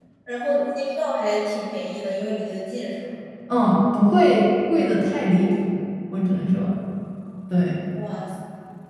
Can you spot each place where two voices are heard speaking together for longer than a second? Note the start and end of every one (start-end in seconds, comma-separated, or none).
none